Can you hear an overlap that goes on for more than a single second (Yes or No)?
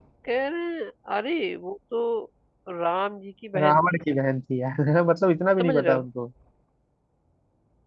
No